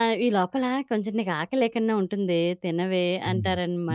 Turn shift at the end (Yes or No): Yes